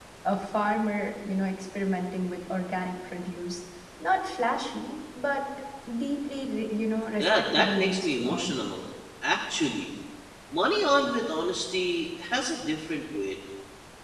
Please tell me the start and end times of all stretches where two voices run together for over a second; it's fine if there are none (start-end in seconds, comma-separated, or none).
7.2-8.5